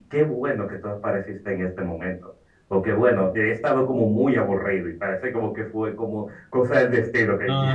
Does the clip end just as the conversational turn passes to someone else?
Yes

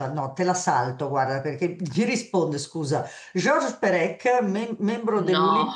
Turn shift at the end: No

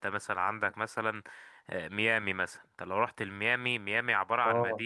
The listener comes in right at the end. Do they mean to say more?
No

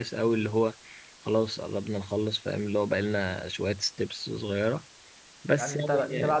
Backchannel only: No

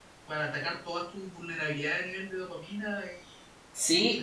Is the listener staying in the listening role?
No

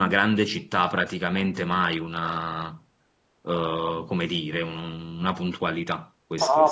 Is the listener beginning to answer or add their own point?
Yes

